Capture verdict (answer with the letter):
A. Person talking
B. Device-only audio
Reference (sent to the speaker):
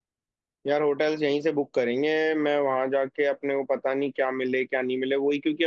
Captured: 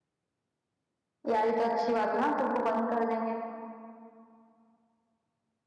A